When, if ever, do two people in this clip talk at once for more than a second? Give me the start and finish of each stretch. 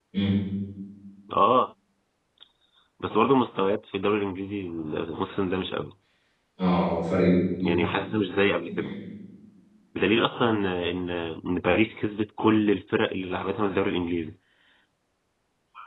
none

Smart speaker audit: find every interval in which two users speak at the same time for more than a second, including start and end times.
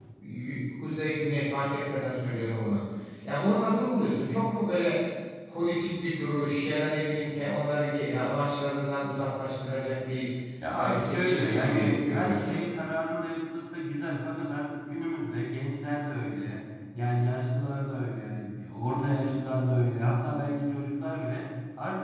10.7-12.6

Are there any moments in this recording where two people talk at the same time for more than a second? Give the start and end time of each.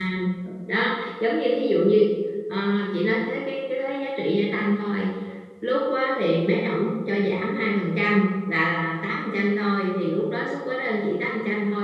none

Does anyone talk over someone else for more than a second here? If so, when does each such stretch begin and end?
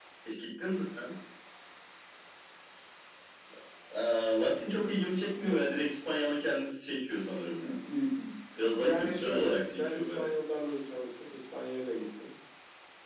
8.8-10.3

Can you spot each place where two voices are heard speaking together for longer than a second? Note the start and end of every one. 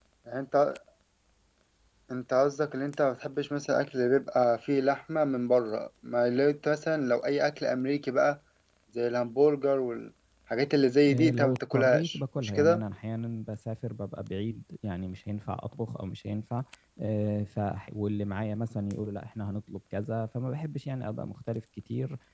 11.1-12.8

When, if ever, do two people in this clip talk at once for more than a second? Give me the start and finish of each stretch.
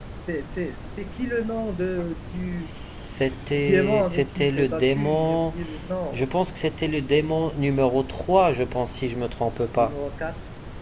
3.5-5.6

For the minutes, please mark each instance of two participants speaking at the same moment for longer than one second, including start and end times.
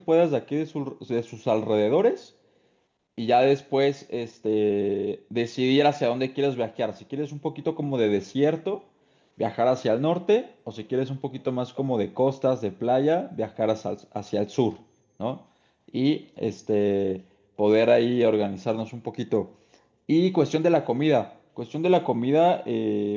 none

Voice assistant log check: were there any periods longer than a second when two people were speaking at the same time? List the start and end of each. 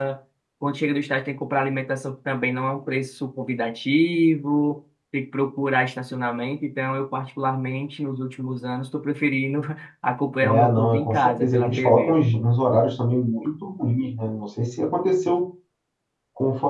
10.4-12.1

